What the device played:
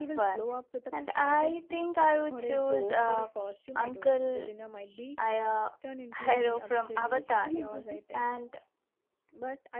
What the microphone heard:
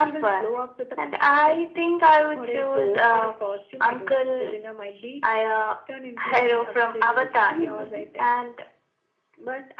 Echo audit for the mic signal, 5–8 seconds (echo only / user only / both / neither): echo only